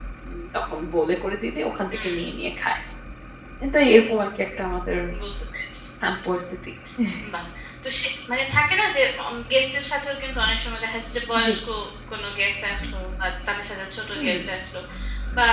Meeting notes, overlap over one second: none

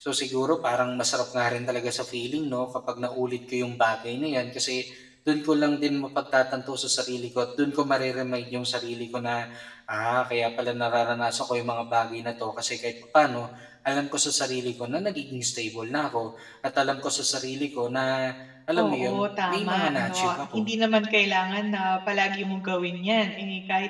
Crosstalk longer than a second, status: present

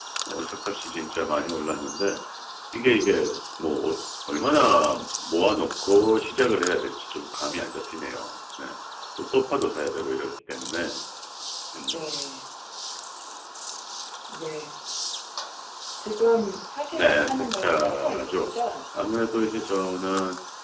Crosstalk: present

